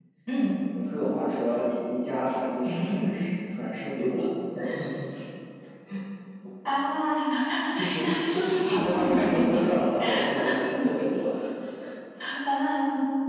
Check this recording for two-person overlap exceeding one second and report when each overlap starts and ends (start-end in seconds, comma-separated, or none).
8.4-9.7